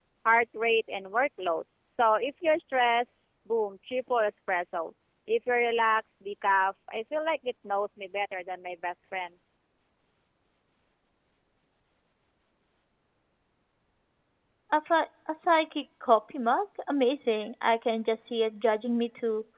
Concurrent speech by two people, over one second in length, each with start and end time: none

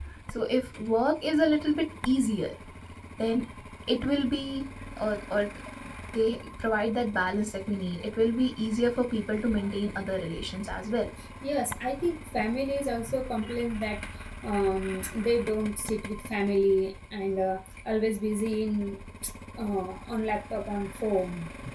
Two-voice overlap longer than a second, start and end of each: none

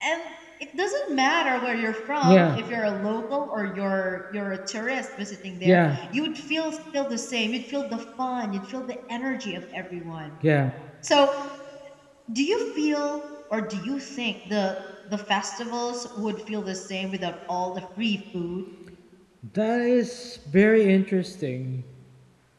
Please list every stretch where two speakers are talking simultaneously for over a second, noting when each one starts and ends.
none

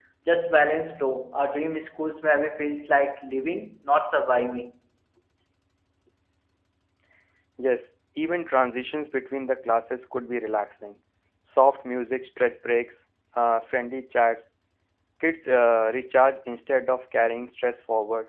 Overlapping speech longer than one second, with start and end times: none

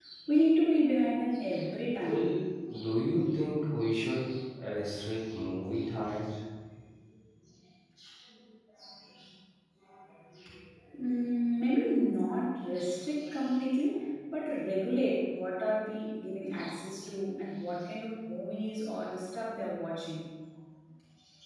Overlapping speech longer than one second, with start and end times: none

